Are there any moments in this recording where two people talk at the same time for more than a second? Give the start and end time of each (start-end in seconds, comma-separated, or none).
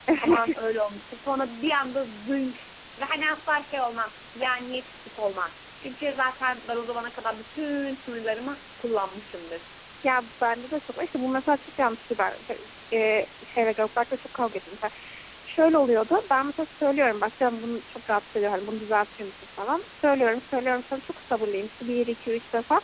none